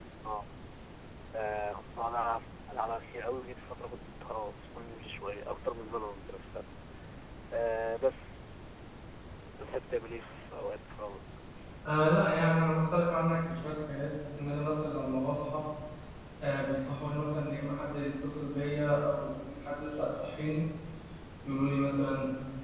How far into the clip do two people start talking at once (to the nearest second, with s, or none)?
none